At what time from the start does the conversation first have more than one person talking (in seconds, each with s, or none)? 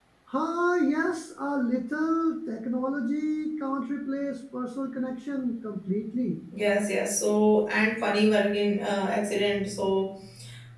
none